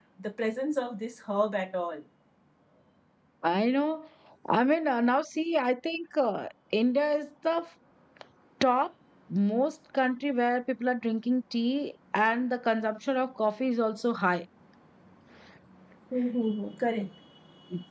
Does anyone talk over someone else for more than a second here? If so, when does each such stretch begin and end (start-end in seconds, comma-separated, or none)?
none